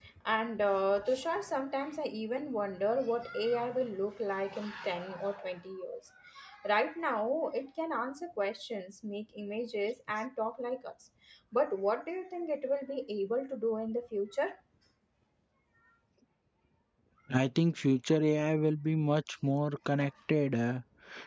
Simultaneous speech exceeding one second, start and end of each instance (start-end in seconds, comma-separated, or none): none